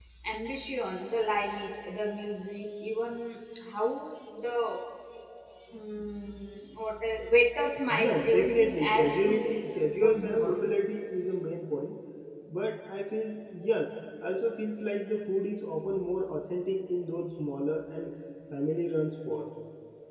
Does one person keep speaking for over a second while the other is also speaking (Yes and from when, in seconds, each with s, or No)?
Yes, from 7.9 s